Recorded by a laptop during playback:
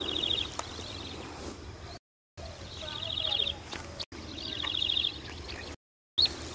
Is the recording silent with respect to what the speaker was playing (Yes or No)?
Yes